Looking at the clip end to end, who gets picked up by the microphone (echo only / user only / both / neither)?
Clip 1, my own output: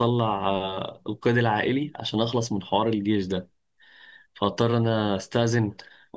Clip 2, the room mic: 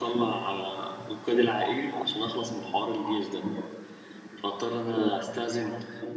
echo only